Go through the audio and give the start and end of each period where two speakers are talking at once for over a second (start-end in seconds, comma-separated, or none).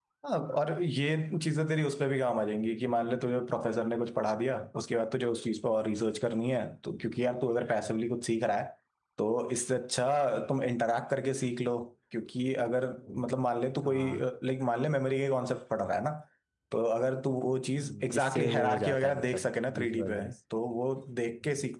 17.8-20.3